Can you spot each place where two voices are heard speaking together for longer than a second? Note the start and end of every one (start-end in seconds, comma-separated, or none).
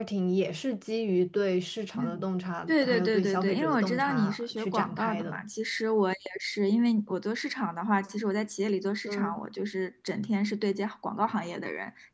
2.7-5.4